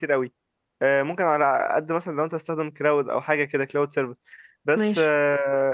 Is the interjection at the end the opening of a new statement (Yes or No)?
No